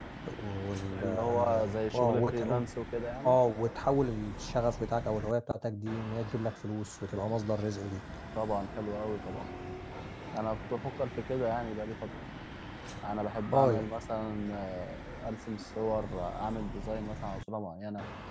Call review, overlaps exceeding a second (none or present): present